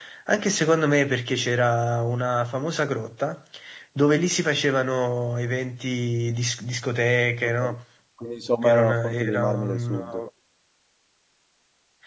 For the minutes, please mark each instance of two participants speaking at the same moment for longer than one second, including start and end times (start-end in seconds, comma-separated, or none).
8.6-10.0